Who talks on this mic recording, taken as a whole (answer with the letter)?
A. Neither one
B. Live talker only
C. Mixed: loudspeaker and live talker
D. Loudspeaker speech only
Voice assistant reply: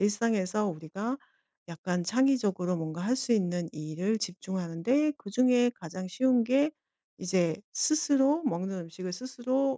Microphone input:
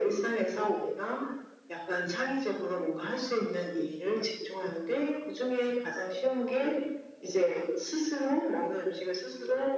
D